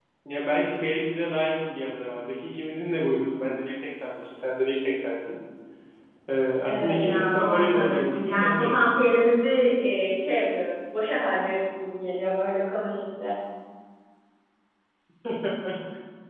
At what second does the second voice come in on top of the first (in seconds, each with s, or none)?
6.6 s